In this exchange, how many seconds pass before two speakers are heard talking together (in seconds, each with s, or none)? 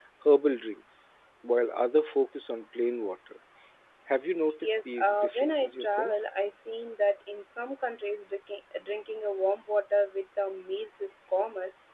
4.6 s